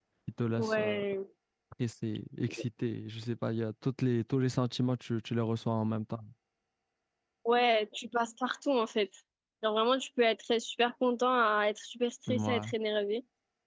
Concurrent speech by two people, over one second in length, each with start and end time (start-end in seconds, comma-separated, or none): none